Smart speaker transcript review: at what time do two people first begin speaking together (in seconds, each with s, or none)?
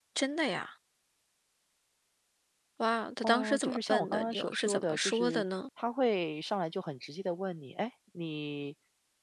3.2 s